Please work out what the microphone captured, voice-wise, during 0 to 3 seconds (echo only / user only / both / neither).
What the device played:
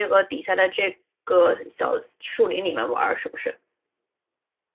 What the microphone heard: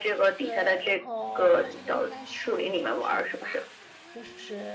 both